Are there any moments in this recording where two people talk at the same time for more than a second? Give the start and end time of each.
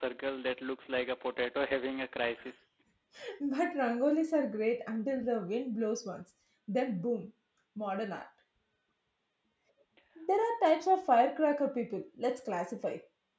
none

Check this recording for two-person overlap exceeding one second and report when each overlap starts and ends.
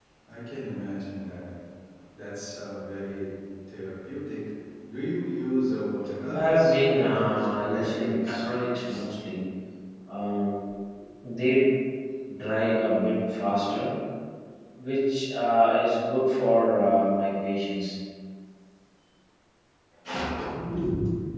6.3-8.5

